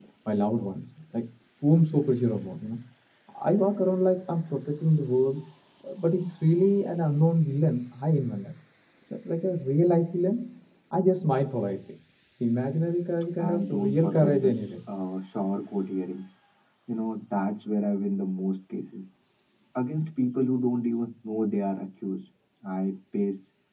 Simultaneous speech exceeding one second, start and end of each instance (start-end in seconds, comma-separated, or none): 13.4-14.8